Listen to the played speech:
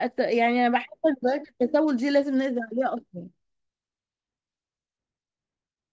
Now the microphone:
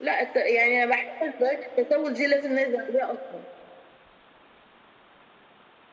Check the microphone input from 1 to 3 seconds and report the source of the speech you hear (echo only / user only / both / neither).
echo only